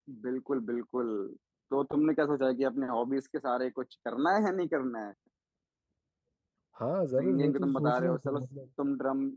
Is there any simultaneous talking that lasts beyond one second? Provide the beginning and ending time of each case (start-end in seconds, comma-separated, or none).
7.2-8.4